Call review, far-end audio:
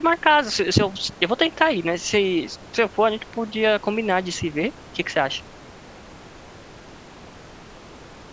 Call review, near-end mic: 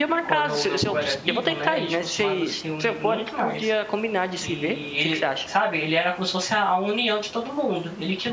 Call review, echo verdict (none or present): present